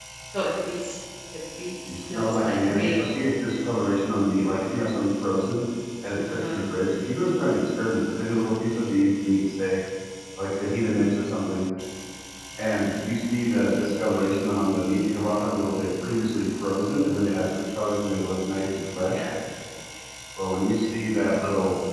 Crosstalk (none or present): present